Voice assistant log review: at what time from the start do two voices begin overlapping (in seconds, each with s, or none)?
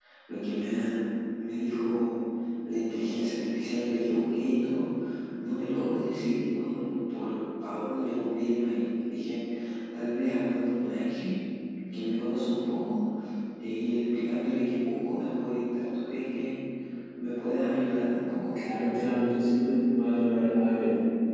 none